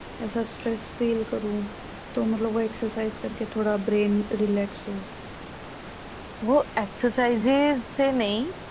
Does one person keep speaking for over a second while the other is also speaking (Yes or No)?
No